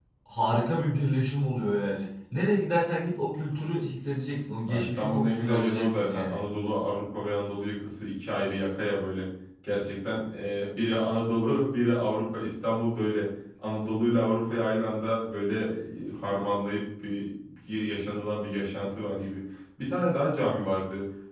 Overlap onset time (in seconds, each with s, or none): 4.7 s